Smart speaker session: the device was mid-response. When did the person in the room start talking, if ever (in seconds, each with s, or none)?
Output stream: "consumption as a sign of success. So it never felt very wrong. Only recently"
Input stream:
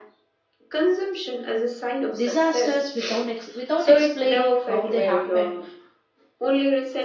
2.1 s